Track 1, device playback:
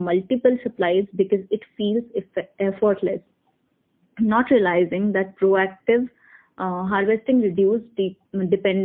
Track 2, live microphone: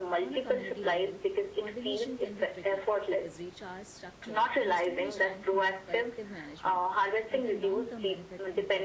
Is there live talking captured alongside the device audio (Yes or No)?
Yes